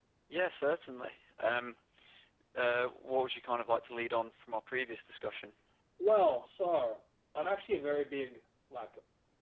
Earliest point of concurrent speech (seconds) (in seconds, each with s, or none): none